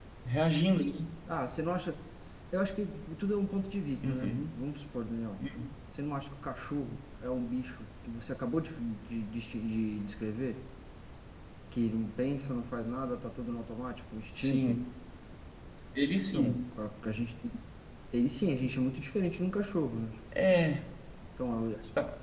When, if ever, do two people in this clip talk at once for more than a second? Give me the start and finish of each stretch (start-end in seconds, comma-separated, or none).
none